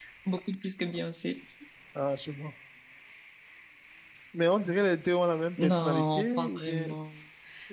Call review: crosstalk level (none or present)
present